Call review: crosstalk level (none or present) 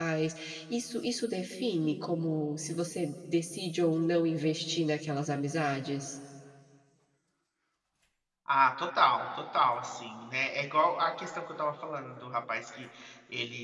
none